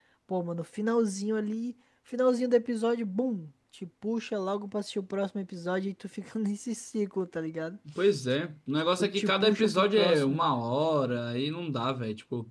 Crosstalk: present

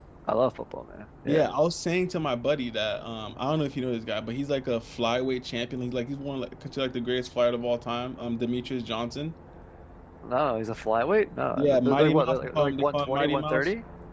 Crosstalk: present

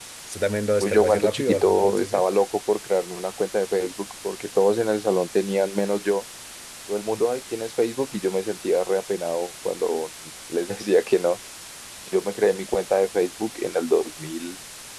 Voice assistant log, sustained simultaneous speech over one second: present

